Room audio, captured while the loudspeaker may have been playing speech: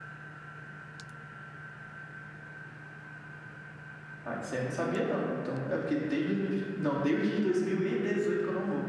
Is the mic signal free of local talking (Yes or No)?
No